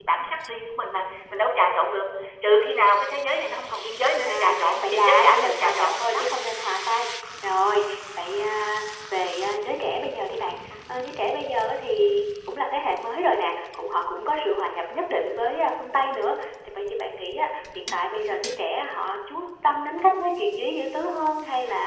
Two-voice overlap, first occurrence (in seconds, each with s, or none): 4.2 s